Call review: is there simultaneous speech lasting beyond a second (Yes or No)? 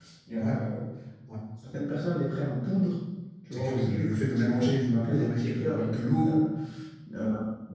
Yes